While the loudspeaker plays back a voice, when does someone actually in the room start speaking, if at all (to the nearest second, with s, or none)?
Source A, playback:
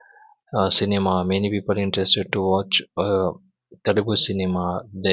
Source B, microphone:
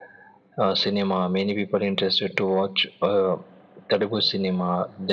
none